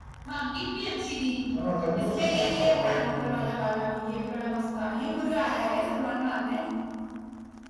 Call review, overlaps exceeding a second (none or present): present